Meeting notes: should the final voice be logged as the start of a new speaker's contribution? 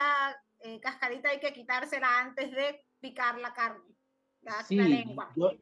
Yes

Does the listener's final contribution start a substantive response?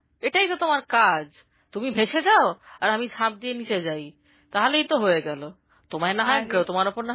No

